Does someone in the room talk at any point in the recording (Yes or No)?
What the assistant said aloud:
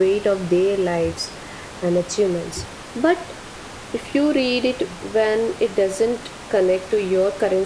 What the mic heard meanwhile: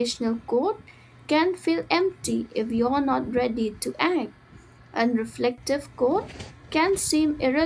Yes